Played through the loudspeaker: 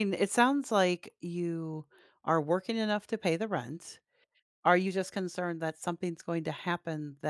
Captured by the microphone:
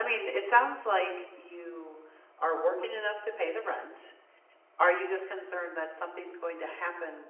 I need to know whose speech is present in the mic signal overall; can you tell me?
echo only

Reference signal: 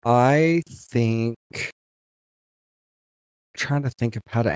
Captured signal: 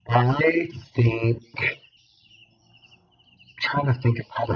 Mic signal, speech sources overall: echo only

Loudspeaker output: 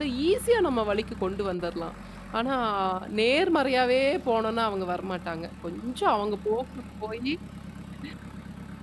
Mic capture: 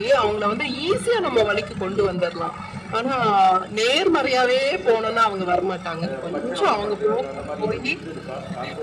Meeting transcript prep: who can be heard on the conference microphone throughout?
both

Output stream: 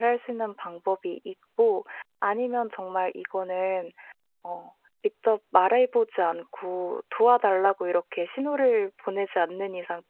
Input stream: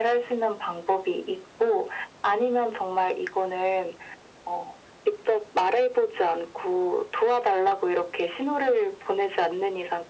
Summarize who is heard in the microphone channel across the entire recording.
echo only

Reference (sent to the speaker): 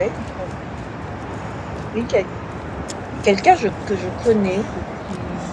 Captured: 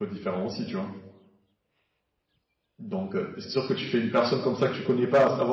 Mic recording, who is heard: user only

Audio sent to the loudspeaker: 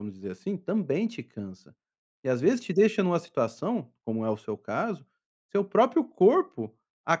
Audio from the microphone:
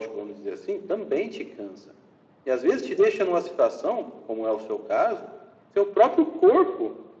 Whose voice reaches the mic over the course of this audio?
echo only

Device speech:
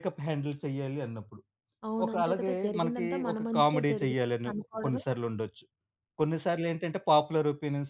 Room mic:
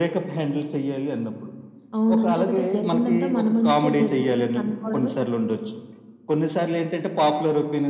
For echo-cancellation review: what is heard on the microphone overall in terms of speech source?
echo only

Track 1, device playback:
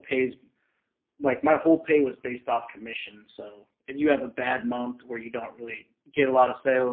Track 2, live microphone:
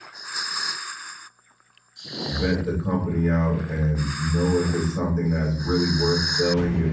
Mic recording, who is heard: user only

